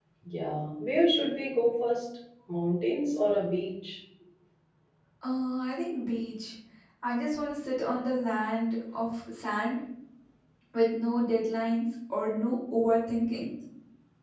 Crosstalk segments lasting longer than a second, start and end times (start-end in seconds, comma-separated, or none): none